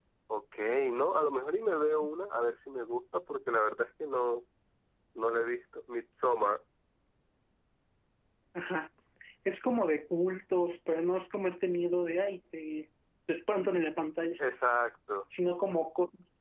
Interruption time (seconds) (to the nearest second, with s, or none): none